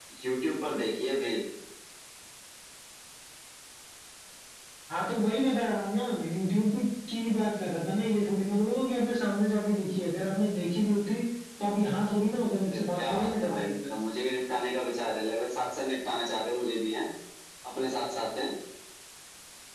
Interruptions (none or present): present